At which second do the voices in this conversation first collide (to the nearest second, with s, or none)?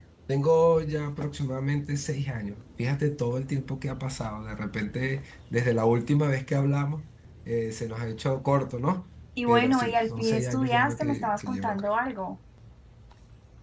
9 s